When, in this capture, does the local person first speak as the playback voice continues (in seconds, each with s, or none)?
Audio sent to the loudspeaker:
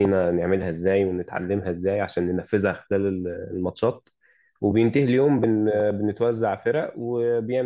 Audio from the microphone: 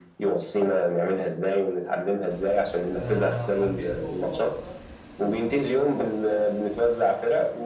3.0 s